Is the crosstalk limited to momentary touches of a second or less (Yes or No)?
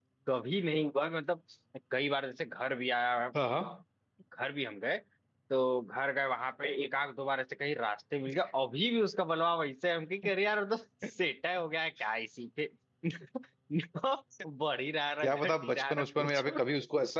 No